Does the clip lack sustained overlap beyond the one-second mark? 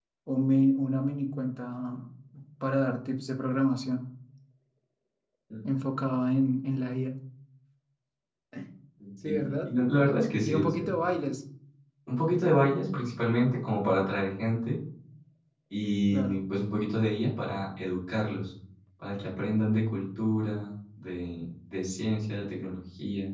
Yes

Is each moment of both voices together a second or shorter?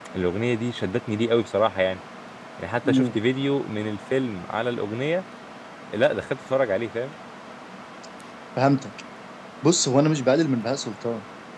Yes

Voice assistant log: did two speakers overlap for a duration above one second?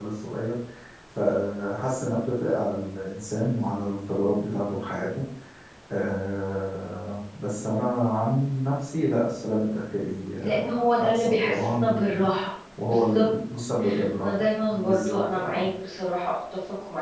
Yes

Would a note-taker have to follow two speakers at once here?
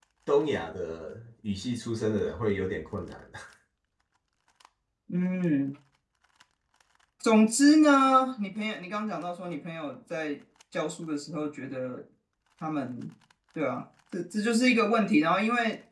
No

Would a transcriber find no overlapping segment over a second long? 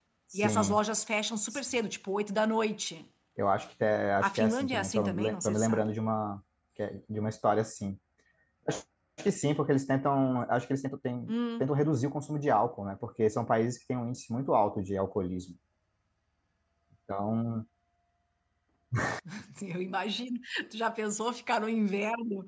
No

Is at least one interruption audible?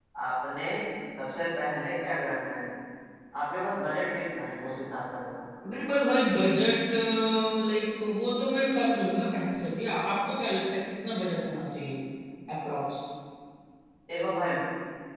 No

